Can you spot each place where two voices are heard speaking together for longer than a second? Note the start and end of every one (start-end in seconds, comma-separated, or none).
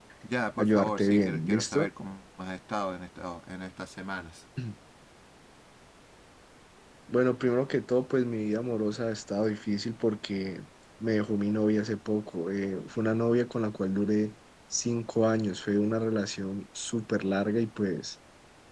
0.6-1.9